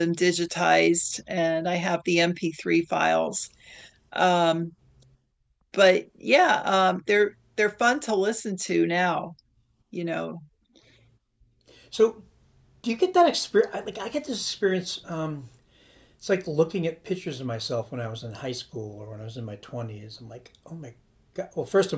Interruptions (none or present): none